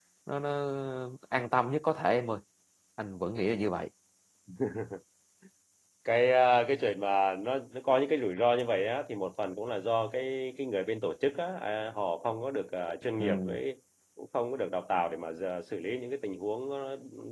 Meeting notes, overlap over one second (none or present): none